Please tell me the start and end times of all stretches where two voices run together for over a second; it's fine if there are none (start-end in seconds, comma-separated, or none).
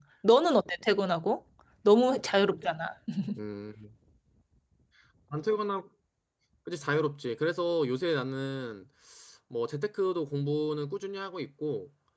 none